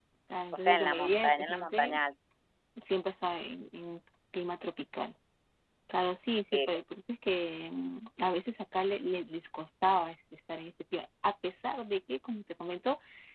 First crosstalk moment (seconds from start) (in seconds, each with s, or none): 0.5 s